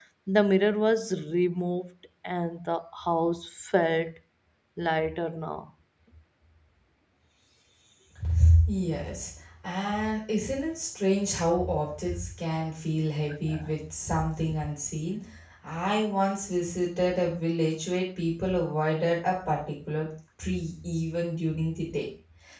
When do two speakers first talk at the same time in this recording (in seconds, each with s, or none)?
none